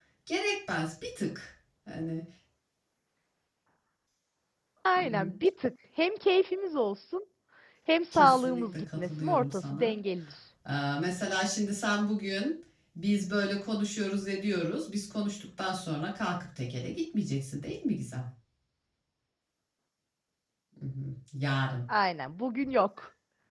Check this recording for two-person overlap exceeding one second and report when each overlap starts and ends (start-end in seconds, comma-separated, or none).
8.1-10.0